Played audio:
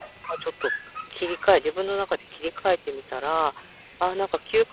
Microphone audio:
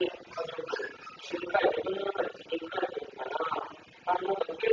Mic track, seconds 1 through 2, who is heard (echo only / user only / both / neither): echo only